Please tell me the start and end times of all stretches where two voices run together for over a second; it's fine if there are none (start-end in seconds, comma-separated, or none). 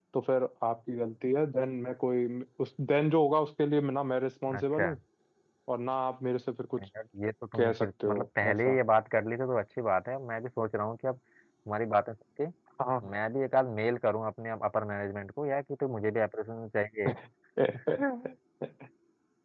7.6-8.8